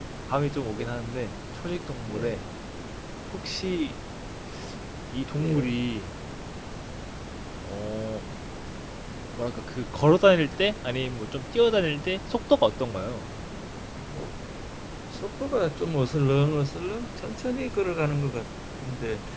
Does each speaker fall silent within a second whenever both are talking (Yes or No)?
Yes